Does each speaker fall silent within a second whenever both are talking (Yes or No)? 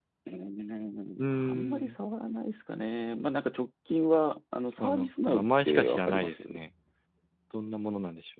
No